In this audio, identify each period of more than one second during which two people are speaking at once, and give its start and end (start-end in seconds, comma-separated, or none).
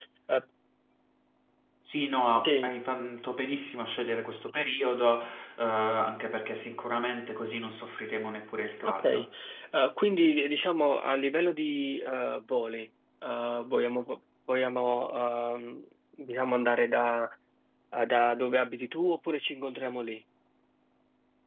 none